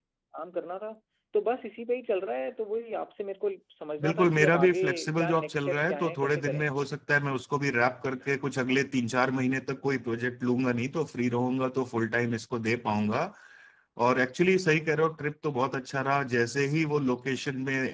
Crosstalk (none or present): present